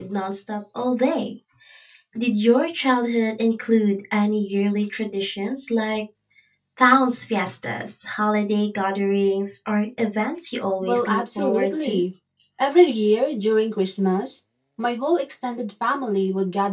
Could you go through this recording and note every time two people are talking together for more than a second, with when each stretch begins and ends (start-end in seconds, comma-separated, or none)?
10.8-12.0